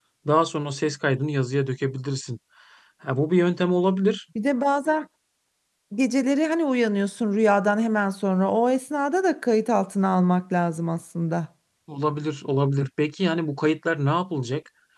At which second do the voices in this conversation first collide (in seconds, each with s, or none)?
none